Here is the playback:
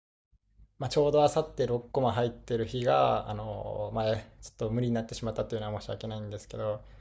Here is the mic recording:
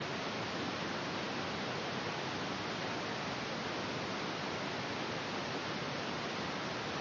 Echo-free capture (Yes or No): Yes